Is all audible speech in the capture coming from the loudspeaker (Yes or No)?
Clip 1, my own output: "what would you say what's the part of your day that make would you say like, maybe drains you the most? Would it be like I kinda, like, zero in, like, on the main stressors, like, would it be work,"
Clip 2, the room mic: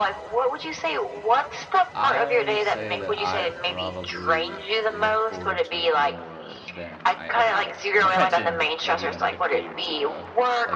No